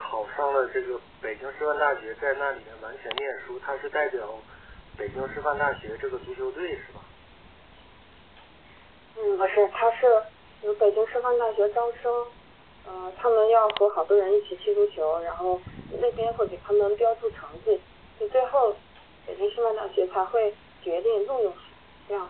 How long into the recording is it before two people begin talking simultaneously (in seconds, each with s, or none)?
none